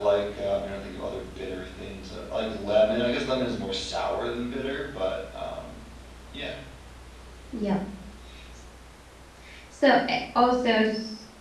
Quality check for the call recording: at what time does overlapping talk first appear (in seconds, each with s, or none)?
none